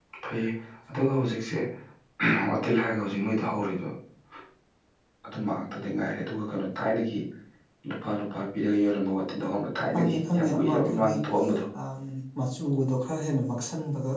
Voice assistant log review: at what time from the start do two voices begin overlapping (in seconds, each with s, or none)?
9.9 s